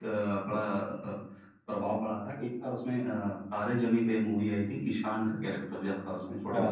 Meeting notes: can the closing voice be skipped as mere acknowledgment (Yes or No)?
No